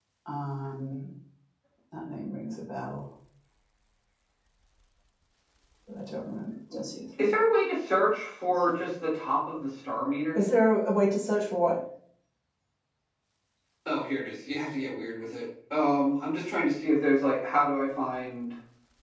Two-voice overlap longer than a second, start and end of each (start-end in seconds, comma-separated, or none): none